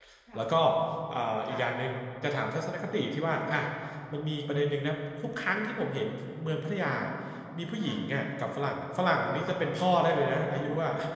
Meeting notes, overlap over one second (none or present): none